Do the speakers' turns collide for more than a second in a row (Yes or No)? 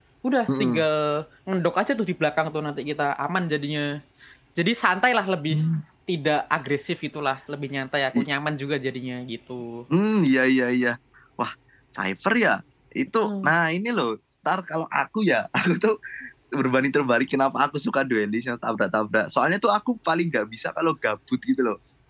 No